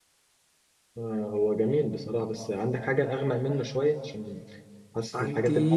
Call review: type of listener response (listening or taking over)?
listening